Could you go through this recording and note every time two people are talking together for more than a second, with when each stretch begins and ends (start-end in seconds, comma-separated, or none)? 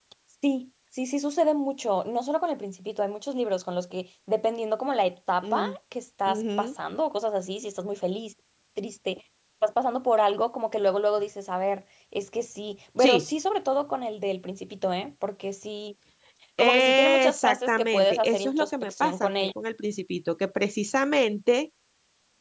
16.6-19.5